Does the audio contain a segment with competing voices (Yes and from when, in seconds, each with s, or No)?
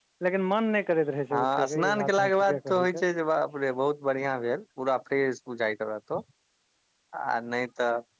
Yes, from 1.3 s